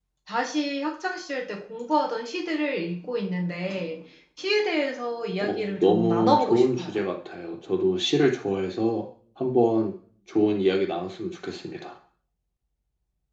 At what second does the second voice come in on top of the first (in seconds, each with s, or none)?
5.4 s